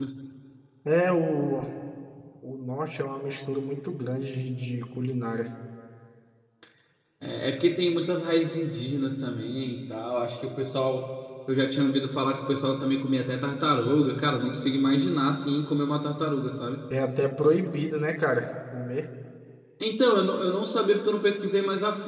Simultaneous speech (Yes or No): No